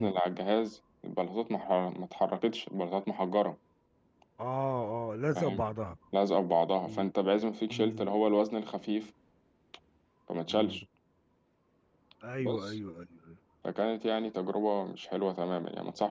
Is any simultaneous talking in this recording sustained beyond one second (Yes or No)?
No